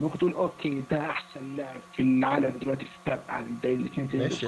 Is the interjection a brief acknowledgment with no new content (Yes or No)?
No